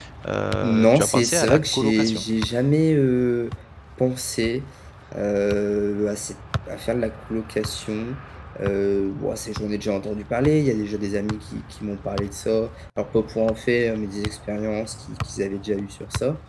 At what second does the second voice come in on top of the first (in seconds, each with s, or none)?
0.6 s